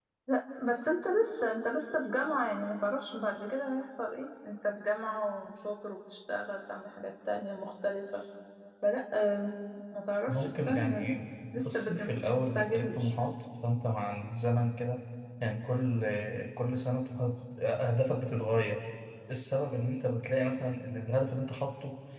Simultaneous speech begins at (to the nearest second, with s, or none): 10 s